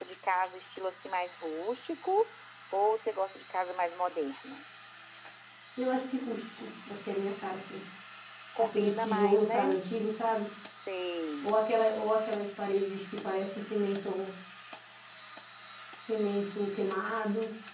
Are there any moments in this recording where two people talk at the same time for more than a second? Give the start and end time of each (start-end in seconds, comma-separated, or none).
8.6-9.8